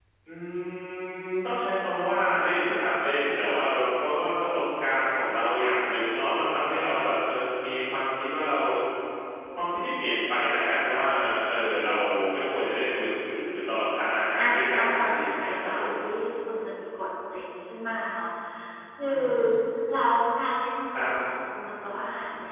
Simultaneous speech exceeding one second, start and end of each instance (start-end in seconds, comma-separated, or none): 14.4-15.9